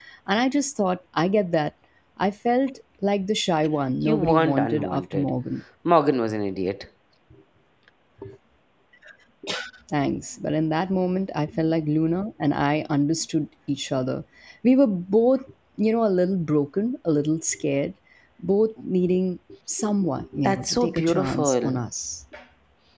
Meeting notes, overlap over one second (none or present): present